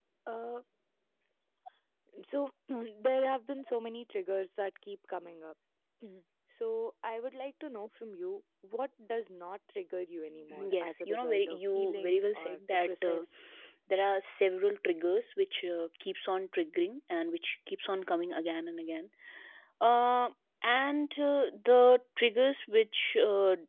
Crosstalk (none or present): present